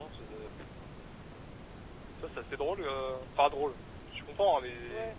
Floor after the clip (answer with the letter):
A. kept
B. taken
A